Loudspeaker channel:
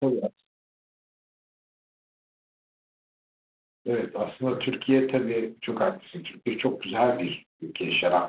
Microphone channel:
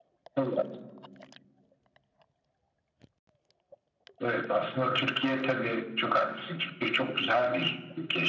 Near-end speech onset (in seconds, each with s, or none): none